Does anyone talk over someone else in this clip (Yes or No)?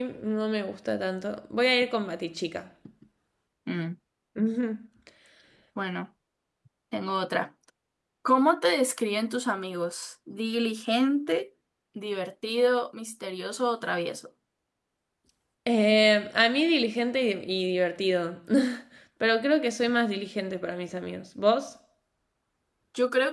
No